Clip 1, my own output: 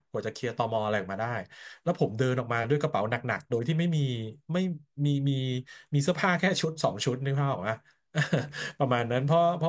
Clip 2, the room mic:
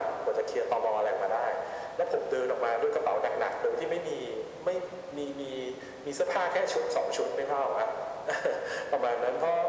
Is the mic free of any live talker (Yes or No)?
Yes